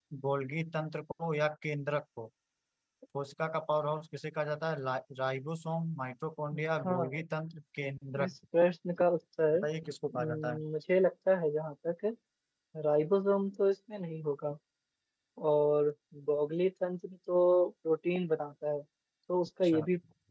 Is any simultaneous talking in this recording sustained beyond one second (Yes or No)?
No